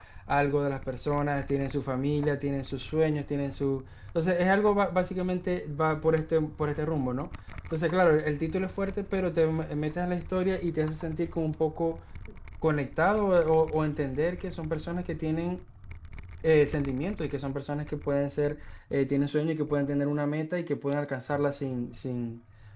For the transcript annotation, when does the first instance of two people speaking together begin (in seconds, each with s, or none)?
none